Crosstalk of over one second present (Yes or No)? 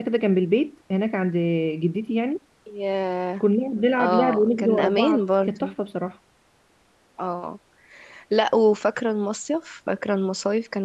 Yes